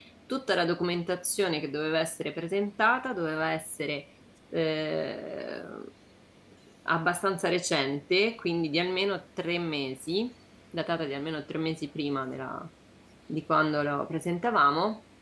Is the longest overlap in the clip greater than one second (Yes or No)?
No